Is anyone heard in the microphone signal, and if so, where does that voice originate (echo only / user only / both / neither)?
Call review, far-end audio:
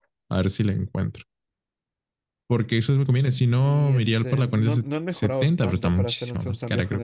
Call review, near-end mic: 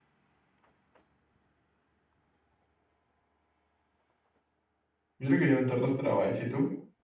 user only